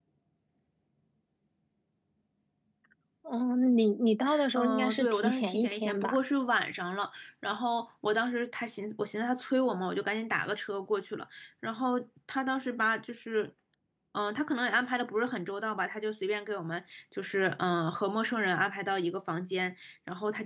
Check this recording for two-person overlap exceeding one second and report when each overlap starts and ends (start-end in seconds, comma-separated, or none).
4.5-6.2